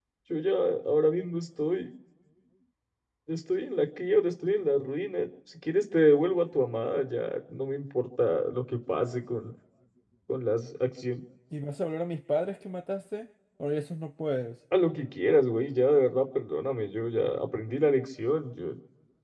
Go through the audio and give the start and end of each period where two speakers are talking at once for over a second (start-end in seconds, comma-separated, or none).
none